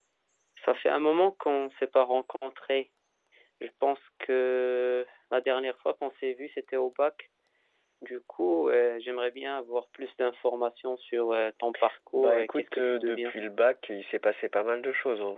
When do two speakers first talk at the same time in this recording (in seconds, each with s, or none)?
12.1 s